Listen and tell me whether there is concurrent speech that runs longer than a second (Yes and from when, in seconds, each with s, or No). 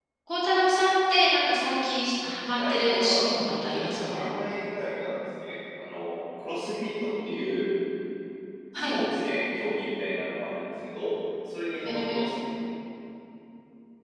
Yes, from 2.5 s